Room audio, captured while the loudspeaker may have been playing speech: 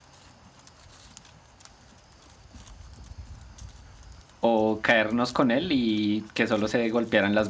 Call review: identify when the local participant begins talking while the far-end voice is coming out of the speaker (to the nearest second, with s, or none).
4 s